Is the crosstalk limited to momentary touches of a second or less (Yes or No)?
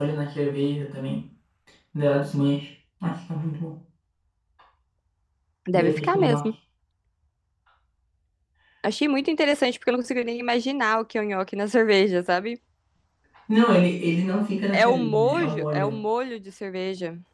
No